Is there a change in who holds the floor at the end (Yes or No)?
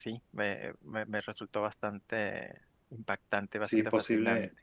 Yes